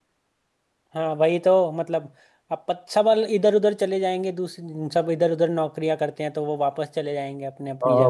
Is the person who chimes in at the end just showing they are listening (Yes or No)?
No